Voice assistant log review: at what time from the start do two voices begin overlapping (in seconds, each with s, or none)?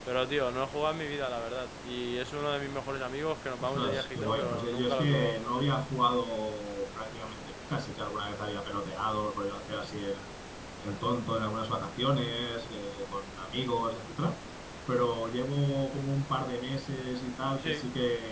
3.6 s